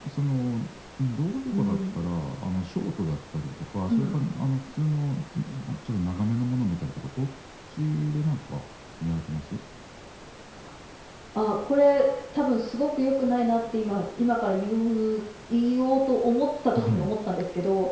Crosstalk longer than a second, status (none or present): none